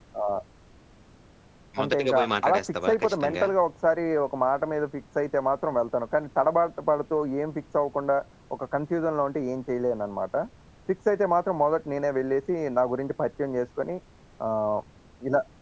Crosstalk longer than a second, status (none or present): present